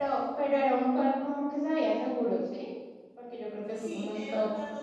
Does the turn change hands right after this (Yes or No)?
Yes